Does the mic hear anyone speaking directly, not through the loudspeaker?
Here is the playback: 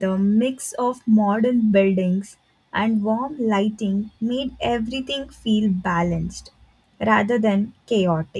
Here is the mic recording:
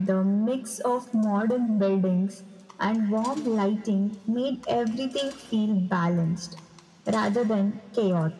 No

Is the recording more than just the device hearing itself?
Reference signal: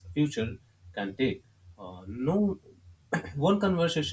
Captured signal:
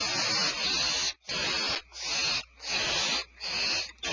No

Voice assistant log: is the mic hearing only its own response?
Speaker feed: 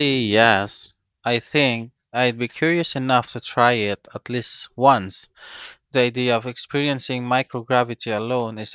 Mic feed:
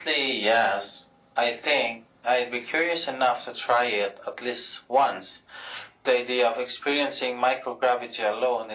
Yes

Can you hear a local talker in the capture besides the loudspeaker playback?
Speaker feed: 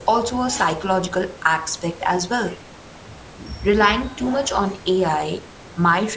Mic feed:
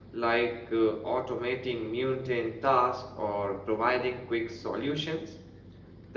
Yes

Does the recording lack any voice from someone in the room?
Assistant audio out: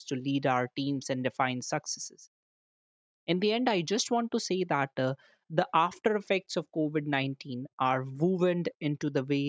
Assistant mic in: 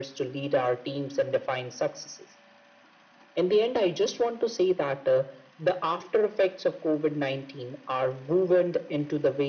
Yes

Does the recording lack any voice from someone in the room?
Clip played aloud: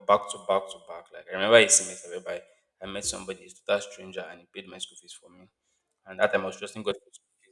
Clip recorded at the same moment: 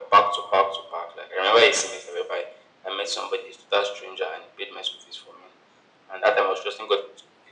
Yes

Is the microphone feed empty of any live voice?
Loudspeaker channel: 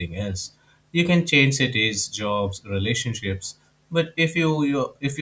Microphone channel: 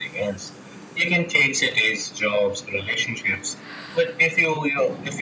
Yes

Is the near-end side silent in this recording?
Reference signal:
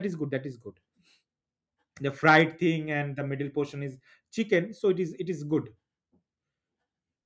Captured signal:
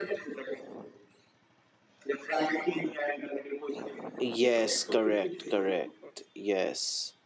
No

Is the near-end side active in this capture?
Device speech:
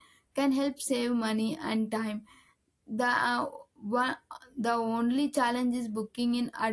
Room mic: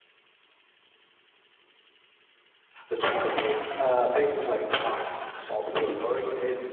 Yes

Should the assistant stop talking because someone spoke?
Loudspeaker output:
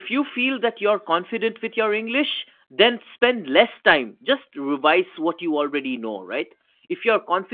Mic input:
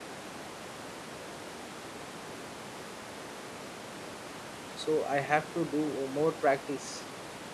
Yes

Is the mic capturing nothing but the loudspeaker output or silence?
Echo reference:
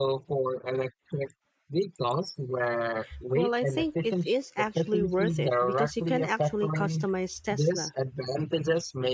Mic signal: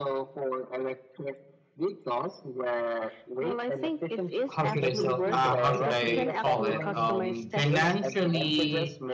No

